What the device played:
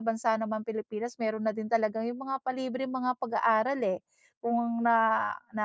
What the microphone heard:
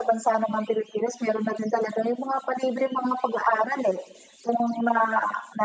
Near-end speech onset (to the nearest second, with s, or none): none